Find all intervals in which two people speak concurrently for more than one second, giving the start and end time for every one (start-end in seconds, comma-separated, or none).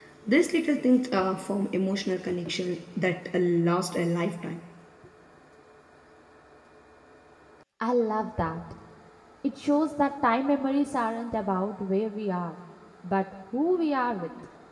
none